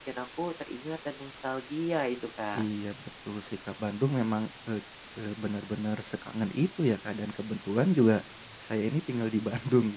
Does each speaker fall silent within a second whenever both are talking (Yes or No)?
Yes